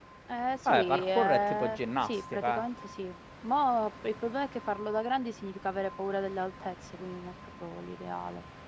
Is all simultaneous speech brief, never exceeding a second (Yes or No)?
No